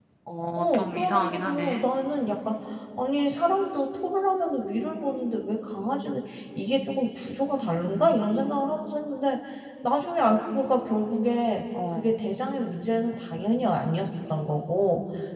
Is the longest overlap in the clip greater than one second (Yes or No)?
Yes